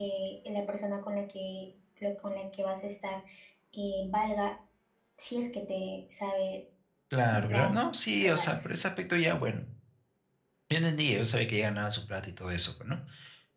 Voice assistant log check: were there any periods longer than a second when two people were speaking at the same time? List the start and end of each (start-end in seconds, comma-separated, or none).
none